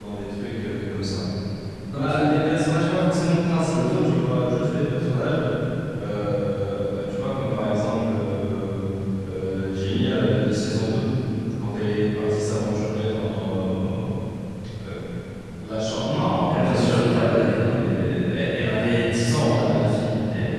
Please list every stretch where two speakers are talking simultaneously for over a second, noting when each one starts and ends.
16.5-17.9

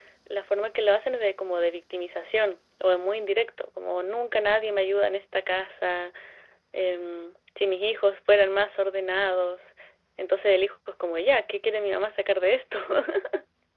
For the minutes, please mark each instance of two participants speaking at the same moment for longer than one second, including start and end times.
none

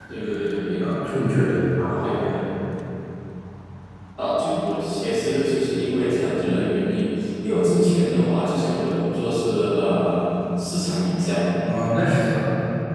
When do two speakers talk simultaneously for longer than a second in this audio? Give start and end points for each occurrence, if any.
none

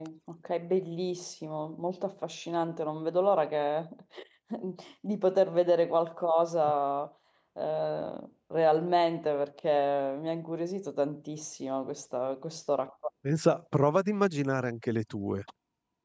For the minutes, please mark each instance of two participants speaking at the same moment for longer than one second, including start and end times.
none

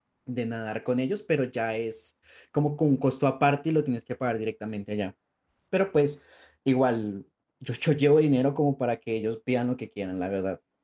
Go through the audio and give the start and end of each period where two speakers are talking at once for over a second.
none

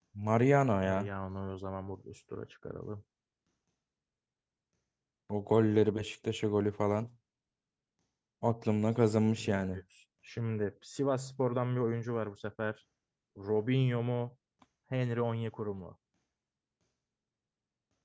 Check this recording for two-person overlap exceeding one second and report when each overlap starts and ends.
none

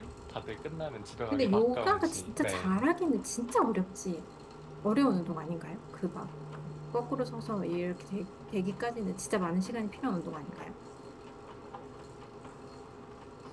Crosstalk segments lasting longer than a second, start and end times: 1.3-2.8

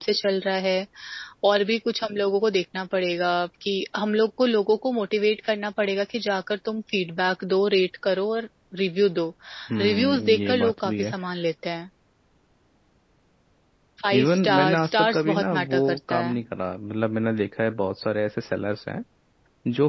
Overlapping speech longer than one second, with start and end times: 9.8-11.1, 14.1-16.4

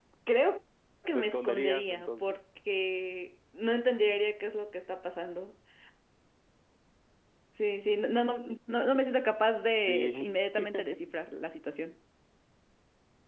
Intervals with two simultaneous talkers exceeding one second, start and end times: 1.1-2.4

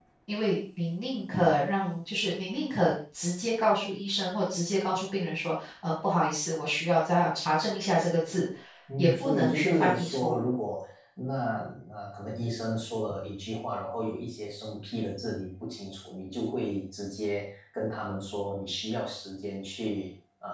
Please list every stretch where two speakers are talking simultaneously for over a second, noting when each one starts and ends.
9.0-10.5

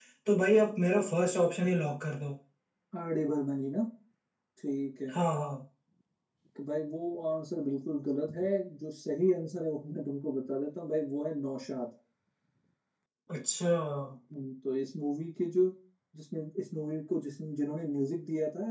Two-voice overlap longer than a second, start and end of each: none

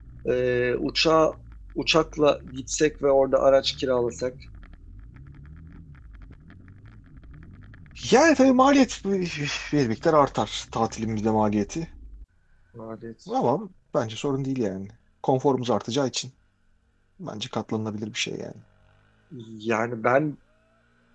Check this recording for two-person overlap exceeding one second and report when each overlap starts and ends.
none

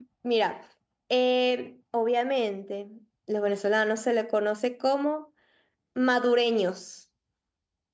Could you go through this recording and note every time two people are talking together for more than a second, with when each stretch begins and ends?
none

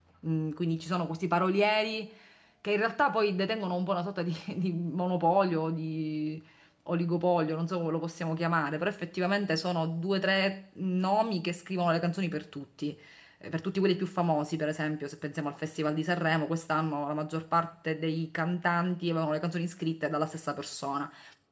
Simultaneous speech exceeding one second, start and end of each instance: none

